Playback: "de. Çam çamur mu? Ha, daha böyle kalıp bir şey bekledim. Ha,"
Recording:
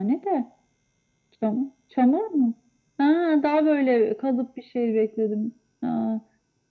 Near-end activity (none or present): none